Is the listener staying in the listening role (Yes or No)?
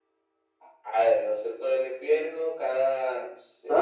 Yes